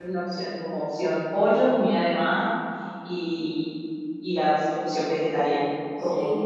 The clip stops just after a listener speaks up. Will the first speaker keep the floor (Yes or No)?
No